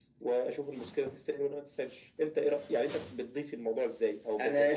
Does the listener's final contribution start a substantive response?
Yes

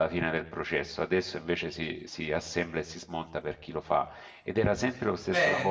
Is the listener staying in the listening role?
No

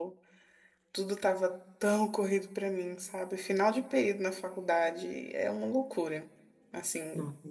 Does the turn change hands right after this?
No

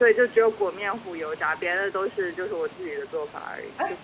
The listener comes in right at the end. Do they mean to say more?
Yes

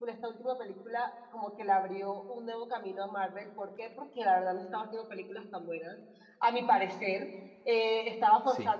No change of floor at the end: Yes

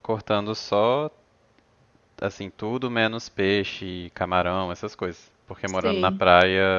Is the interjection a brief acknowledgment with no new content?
Yes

